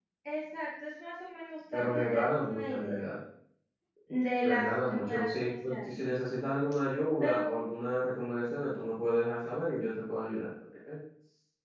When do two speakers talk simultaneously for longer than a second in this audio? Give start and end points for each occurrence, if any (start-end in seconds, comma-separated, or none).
1.7-3.0, 4.4-6.0